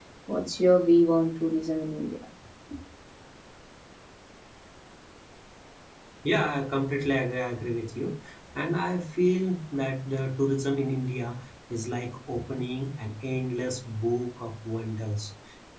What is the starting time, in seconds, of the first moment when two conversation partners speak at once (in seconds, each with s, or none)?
none